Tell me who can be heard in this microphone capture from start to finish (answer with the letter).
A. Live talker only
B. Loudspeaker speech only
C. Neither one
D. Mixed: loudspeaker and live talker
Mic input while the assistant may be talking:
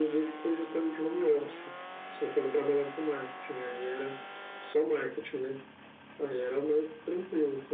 B